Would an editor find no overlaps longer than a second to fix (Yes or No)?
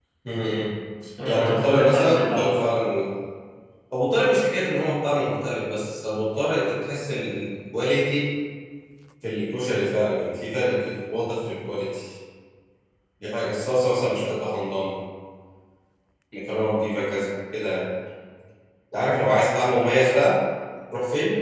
No